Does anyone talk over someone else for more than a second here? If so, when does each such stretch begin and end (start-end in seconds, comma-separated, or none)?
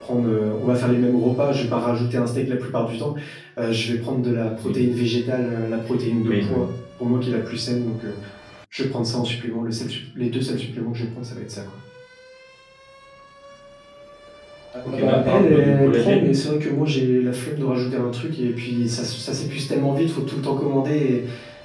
14.8-16.3